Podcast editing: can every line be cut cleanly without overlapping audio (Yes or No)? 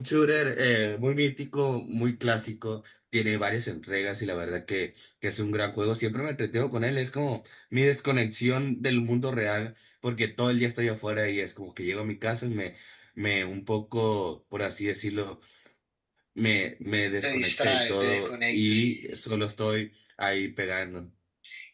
No